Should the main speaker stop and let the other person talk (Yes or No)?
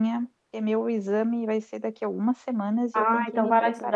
Yes